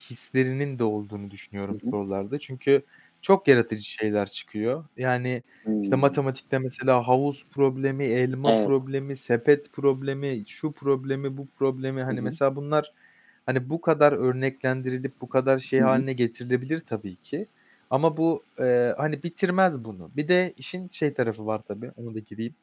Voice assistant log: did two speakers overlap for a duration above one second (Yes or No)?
No